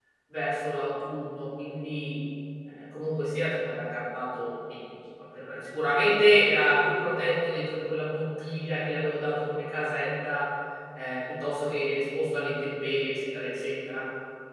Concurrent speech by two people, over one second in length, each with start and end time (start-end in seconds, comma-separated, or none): none